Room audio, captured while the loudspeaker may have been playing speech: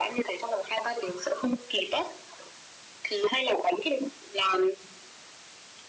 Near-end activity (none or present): none